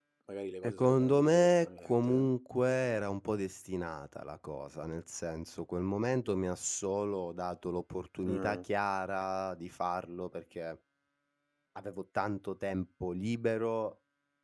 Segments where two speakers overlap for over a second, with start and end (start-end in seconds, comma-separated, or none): 0.6-2.3